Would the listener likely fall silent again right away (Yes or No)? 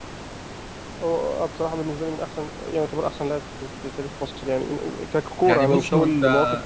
No